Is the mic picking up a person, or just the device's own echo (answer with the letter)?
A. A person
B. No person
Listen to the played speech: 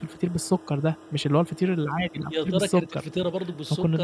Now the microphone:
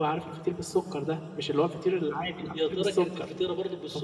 B